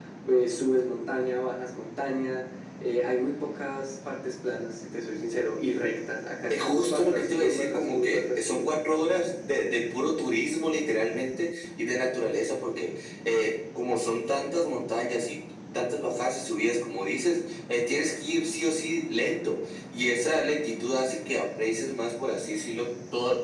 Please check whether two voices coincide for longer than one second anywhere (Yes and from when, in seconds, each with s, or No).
Yes, from 6.5 s